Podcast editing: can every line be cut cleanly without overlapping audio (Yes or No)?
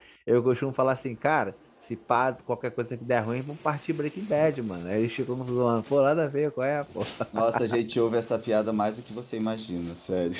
Yes